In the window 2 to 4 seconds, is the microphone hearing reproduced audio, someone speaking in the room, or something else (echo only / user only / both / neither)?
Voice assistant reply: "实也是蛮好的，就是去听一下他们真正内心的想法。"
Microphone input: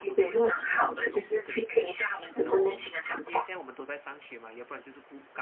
both